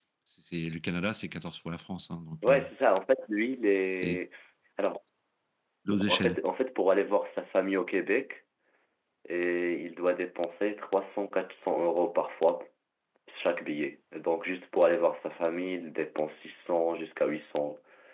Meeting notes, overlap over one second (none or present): none